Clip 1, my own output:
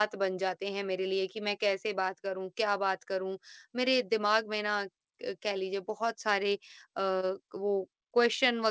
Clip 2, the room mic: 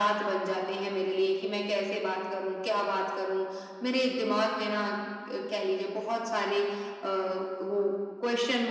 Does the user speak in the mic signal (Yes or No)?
No